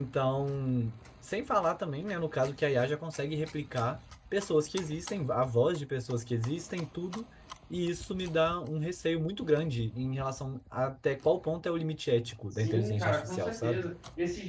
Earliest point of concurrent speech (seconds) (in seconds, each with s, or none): 12.6 s